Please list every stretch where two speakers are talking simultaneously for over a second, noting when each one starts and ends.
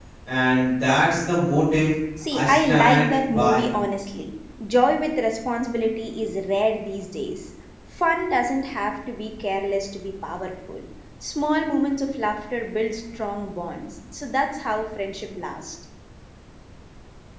2.3-3.7

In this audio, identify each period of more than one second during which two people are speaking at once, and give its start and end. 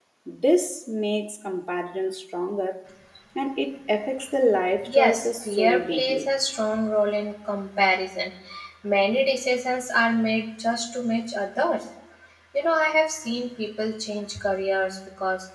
4.9-6.3

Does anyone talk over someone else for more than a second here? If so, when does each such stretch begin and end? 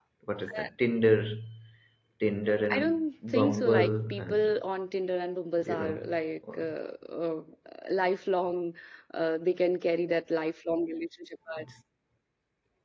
2.7-4.6

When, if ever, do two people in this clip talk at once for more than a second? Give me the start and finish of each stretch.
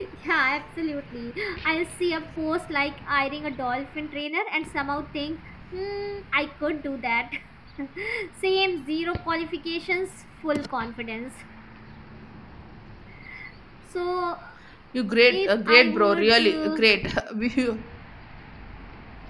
15.3-16.9

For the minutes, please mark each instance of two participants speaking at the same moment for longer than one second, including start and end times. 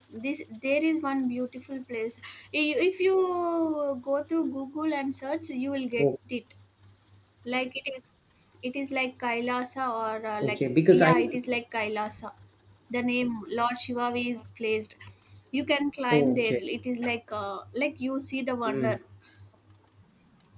none

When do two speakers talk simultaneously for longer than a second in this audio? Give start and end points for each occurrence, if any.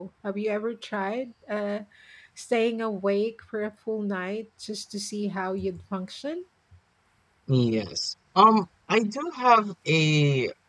none

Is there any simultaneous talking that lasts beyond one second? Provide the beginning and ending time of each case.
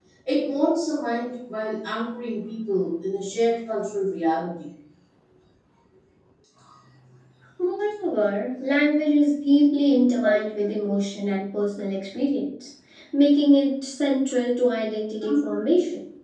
none

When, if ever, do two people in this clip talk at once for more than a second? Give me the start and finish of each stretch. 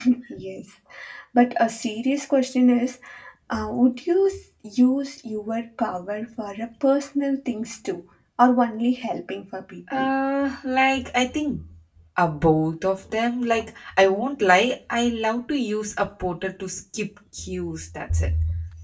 none

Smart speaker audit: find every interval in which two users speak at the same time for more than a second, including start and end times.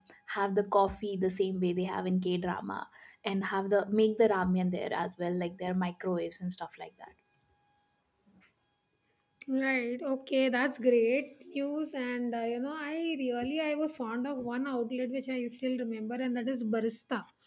none

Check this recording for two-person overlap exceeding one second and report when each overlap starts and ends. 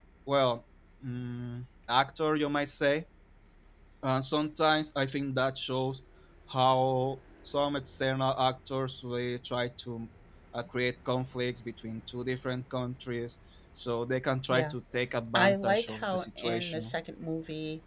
15.3-16.9

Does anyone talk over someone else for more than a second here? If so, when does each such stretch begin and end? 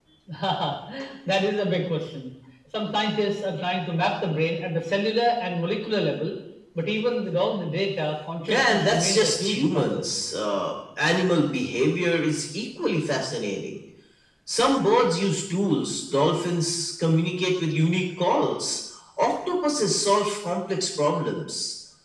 8.5-10.1

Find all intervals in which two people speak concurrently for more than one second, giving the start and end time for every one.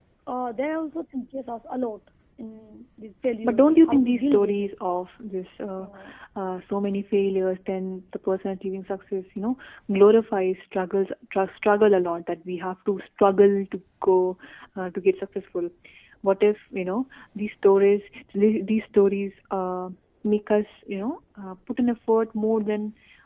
3.4-4.7

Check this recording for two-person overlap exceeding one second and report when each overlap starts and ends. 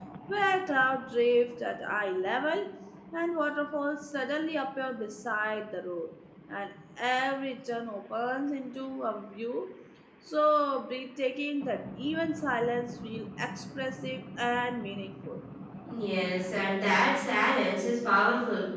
none

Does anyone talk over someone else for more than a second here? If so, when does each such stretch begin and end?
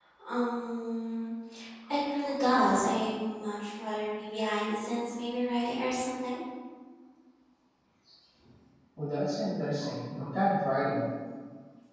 none

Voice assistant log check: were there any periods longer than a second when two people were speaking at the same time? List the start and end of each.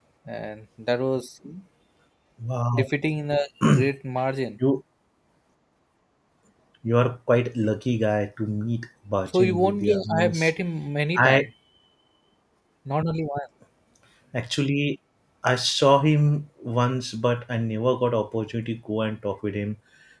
9.3-10.5

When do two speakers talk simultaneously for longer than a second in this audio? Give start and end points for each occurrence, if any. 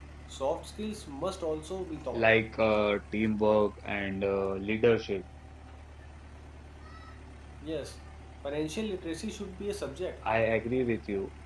none

